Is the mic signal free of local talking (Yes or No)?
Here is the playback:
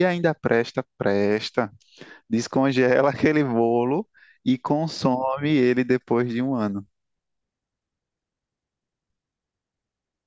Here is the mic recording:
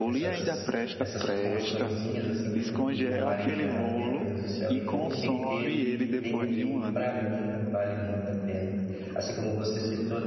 No